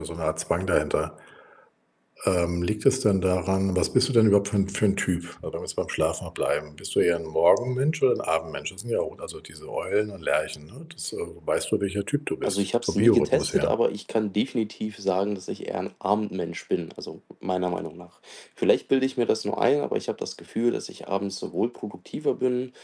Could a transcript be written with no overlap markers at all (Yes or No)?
No